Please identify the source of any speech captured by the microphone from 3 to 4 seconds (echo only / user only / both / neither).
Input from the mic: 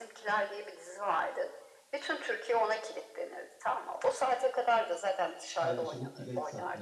echo only